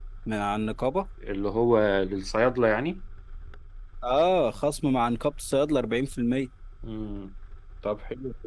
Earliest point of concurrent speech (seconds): none

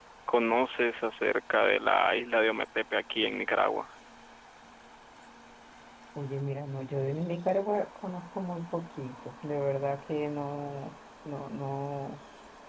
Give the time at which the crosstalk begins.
none

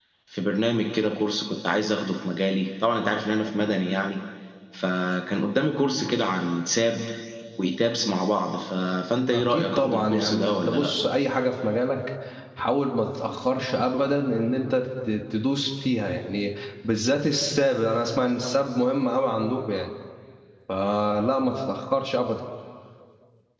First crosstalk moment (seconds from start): 9.3 s

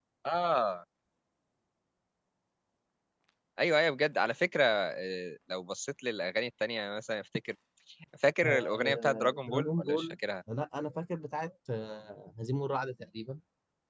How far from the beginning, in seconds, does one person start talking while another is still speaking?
8.4 s

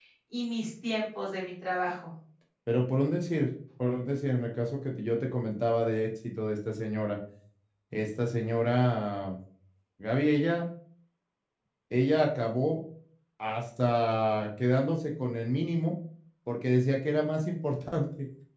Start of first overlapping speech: none

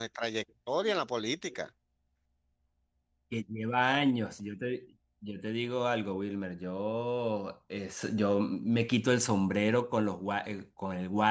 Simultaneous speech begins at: none

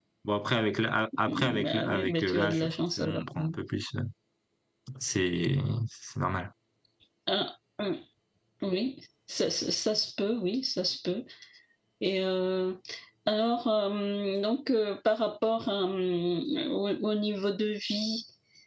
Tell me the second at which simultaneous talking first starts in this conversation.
1.3 s

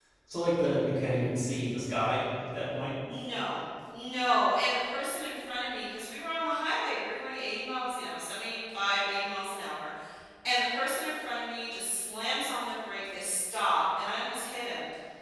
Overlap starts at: none

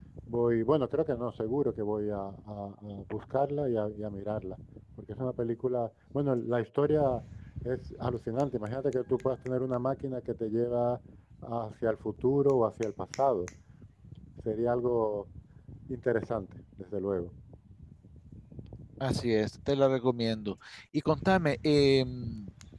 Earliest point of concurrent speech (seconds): none

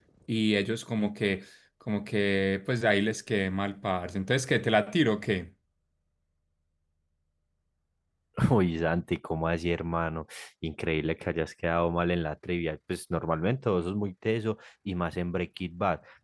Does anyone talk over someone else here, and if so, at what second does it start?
none

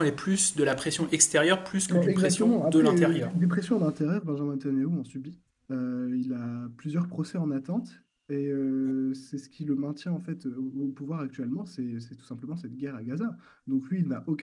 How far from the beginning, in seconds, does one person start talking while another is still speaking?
1.9 s

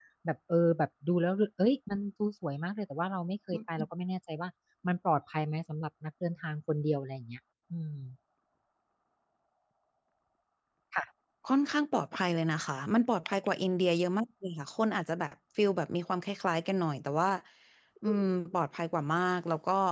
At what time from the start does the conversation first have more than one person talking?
none

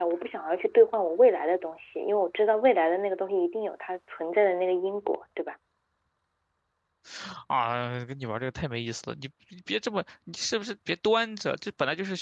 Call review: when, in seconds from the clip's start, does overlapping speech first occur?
none

